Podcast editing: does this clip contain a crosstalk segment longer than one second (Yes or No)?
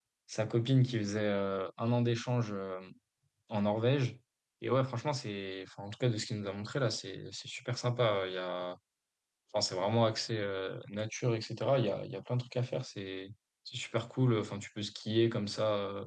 No